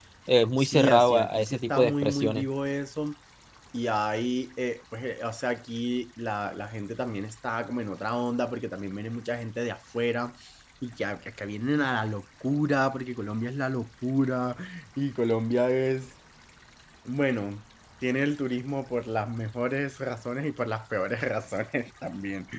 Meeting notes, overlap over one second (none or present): present